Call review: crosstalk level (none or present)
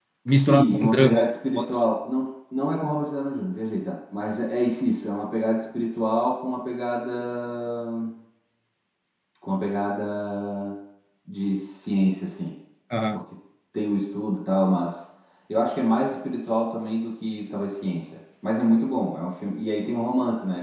present